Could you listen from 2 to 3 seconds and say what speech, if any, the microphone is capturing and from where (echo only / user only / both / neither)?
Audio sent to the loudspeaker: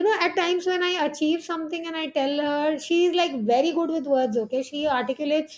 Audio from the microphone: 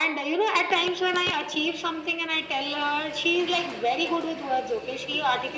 echo only